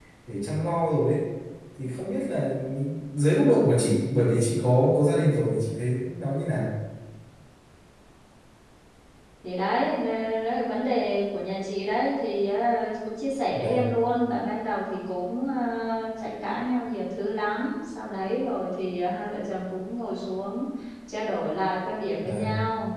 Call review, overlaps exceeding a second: none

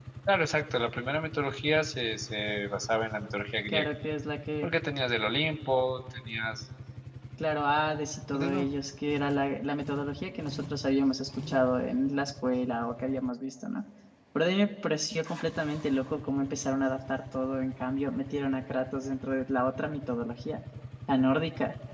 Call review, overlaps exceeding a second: none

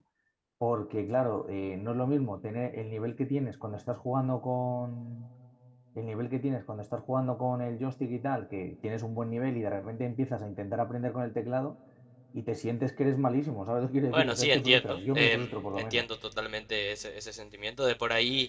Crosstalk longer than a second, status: present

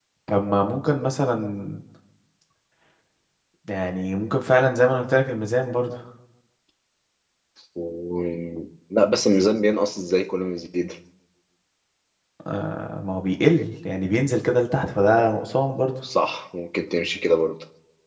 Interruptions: none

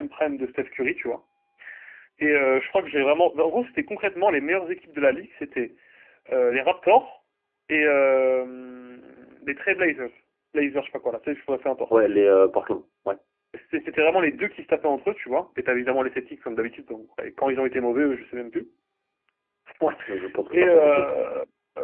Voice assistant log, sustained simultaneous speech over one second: none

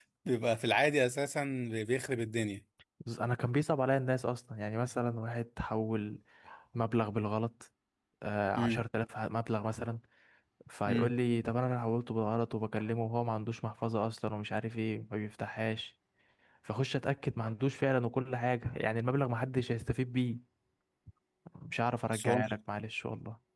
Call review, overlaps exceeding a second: none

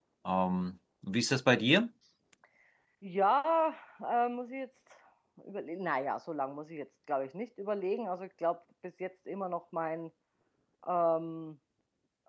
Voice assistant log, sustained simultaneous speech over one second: none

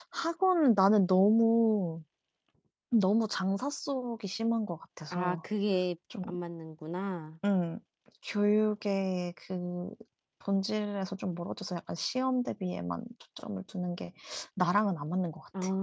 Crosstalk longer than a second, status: none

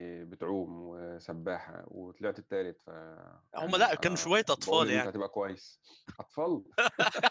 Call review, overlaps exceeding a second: present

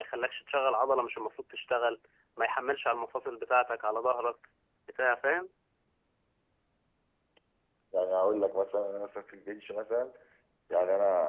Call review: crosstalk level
none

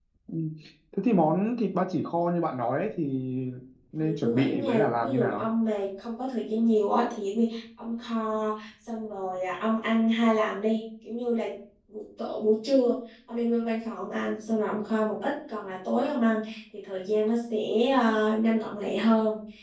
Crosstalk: present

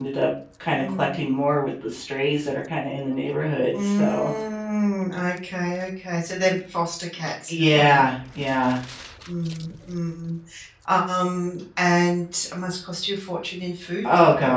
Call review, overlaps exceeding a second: none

